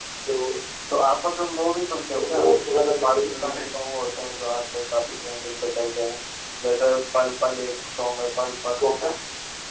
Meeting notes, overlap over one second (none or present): present